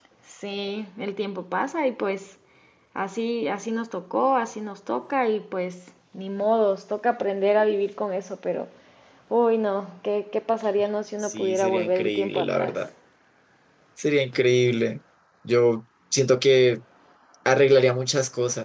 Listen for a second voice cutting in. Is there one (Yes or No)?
Yes